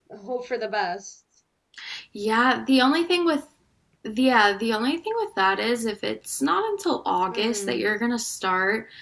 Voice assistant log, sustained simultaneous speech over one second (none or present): none